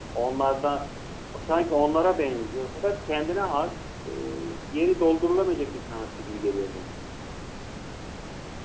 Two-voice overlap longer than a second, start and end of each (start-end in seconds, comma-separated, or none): none